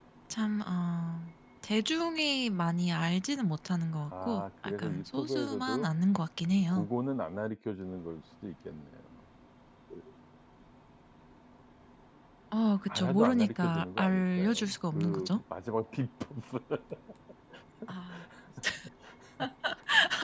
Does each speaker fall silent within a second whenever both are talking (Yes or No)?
No